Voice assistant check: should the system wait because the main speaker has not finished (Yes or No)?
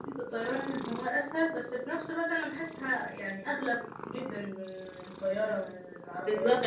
No